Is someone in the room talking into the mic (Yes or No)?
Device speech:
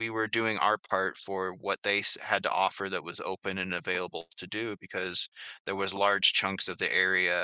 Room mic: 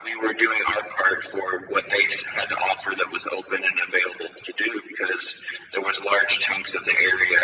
No